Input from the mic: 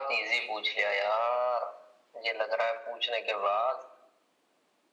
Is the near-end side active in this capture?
No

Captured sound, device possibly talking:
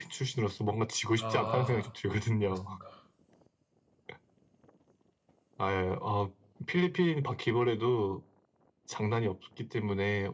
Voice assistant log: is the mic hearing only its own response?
No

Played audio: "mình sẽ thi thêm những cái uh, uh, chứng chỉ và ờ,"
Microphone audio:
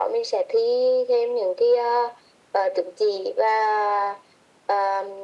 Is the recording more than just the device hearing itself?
No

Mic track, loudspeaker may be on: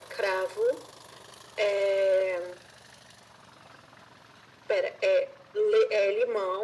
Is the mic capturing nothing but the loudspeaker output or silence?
Yes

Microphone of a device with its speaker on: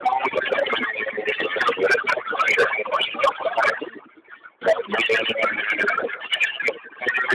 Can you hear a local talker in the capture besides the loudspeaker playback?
No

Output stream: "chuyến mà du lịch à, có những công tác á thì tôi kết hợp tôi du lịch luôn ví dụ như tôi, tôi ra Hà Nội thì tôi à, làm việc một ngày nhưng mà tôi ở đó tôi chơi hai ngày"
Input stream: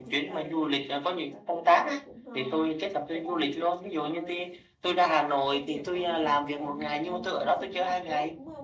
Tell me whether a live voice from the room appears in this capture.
Yes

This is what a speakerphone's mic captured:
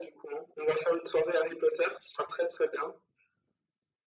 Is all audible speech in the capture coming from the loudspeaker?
Yes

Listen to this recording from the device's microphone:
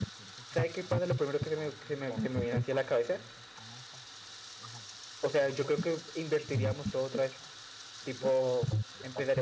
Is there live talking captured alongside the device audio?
Yes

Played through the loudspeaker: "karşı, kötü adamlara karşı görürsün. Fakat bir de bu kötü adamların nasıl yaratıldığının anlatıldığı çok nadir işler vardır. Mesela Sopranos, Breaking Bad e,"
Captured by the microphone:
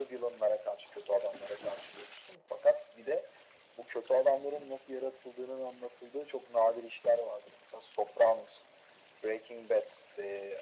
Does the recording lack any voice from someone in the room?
Yes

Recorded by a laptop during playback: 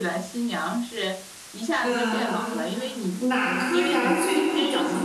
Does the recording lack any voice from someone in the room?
No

